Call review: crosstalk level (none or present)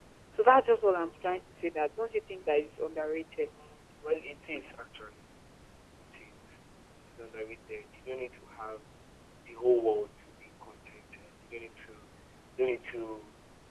none